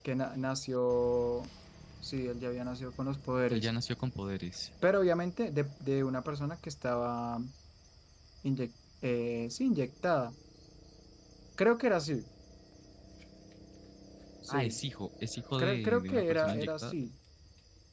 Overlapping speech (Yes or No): Yes